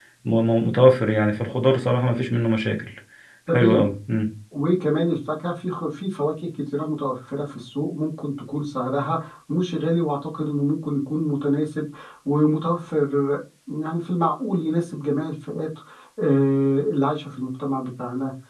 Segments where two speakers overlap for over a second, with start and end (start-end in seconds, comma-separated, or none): none